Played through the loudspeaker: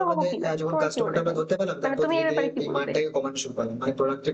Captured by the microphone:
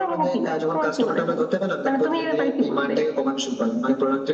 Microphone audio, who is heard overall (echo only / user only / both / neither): echo only